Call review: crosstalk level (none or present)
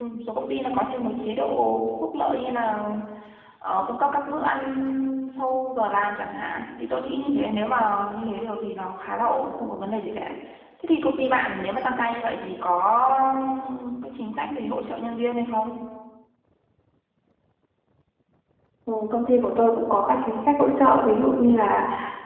none